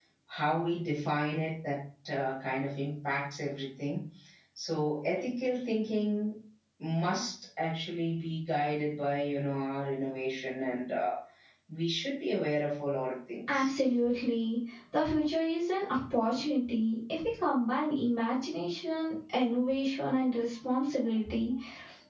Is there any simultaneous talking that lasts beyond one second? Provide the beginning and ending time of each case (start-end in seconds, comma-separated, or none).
none